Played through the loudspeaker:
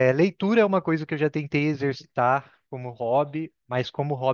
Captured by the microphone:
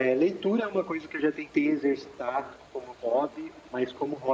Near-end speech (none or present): none